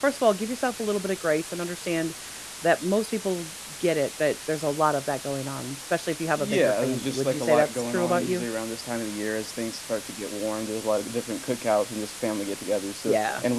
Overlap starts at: 6.4 s

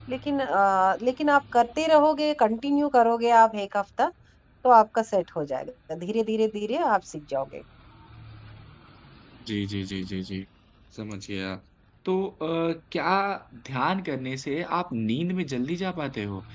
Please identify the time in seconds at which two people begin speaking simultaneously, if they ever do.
none

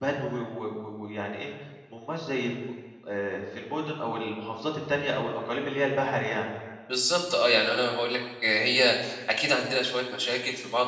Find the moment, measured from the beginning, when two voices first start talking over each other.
none

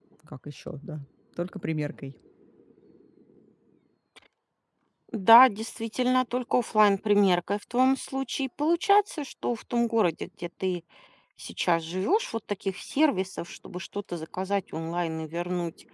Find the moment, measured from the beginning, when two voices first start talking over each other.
none

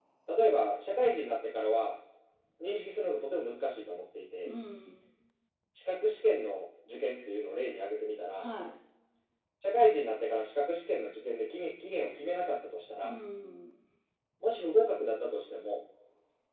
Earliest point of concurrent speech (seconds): none

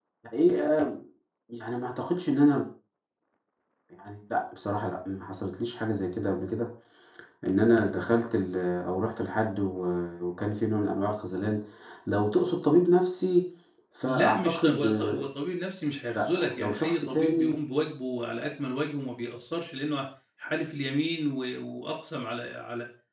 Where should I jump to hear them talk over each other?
14.0 s

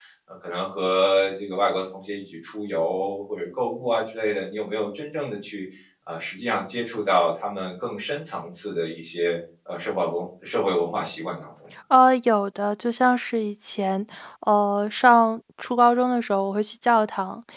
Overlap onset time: none

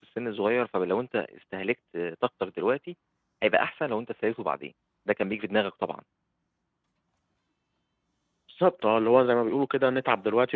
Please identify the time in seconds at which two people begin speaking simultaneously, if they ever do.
none

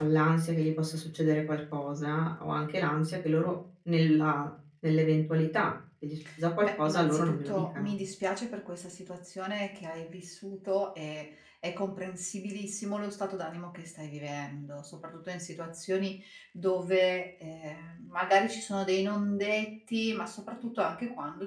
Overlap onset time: 6.6 s

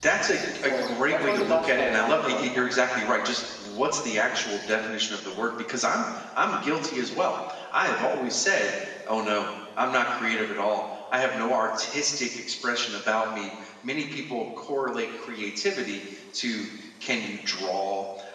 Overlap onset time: 0.6 s

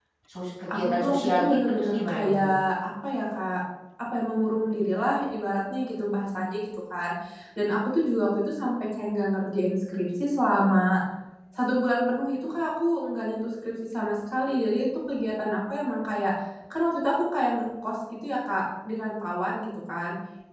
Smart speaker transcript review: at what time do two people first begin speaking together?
0.7 s

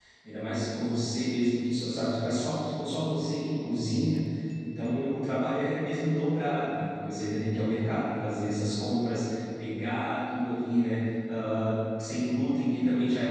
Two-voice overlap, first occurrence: none

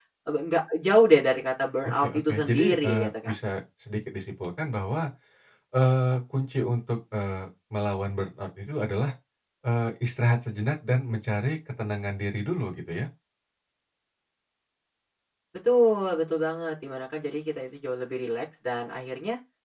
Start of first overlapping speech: 1.8 s

